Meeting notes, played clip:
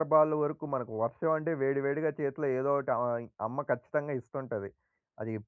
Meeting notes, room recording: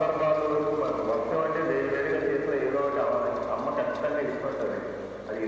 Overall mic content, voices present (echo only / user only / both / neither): echo only